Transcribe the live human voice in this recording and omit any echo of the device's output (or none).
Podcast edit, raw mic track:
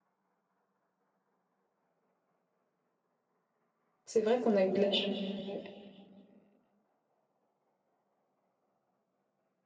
C'est vrai qu'on a eu de la chance.